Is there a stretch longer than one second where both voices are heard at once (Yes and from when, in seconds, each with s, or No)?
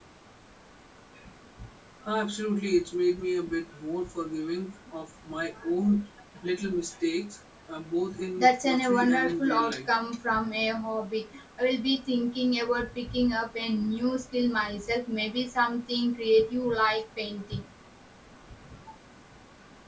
Yes, from 8.4 s